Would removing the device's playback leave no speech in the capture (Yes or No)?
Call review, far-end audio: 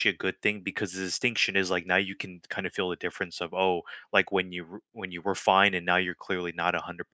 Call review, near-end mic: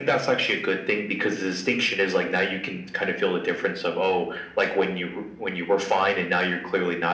Yes